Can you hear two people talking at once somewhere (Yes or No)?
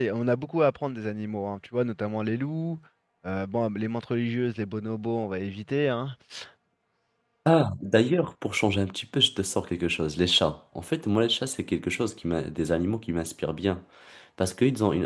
No